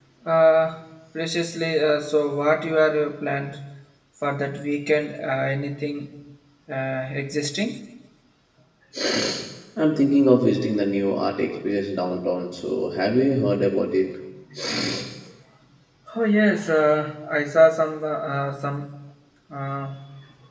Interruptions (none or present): none